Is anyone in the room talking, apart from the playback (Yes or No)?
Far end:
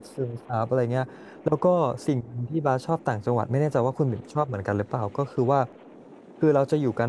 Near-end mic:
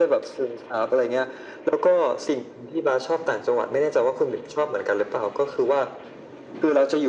No